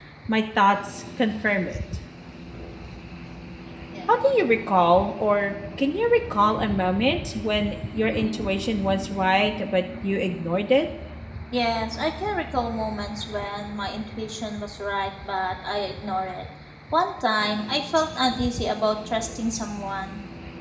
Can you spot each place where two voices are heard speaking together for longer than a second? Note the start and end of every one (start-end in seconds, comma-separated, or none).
none